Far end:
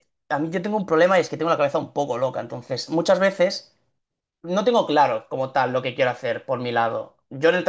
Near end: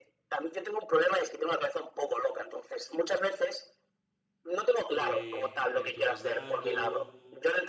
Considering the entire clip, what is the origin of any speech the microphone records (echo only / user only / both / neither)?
both